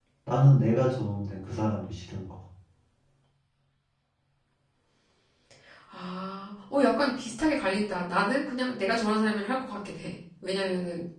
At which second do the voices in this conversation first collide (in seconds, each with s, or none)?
none